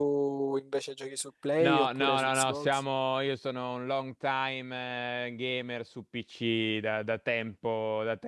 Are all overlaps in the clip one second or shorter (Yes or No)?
No